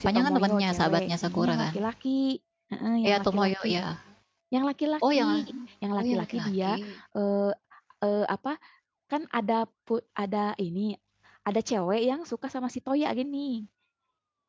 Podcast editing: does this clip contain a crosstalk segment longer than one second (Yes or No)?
Yes